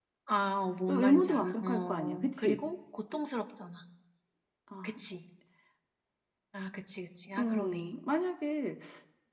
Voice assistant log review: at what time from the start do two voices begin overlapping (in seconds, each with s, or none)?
0.9 s